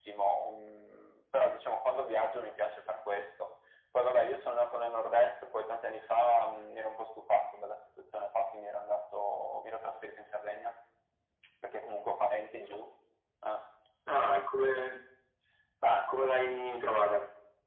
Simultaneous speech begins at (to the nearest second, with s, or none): none